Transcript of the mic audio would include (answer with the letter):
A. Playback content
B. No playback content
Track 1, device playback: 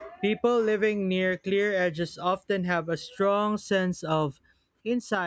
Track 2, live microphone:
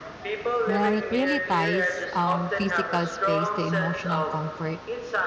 A